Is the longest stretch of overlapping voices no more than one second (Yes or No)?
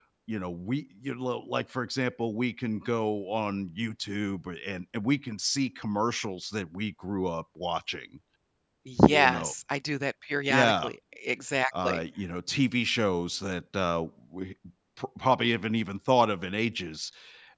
Yes